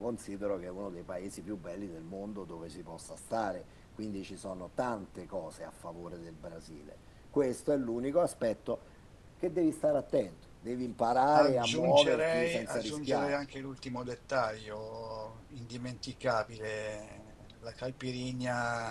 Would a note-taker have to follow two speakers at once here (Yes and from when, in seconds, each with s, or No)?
Yes, from 11.3 s